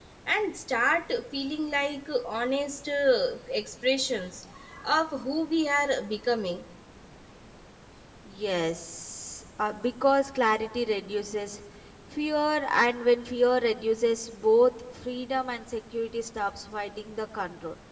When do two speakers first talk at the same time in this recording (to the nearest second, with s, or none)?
none